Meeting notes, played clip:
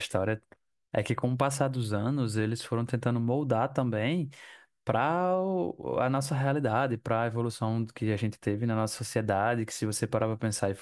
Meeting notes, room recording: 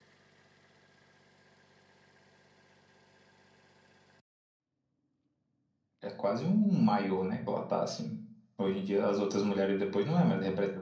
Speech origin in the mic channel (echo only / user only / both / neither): user only